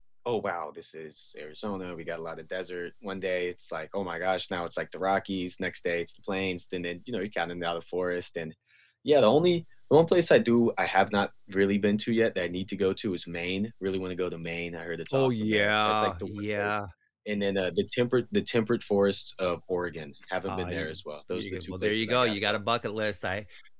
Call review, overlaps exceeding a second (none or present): present